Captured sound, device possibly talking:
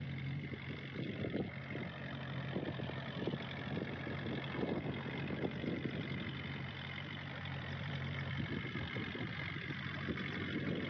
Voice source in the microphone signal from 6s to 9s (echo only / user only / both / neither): neither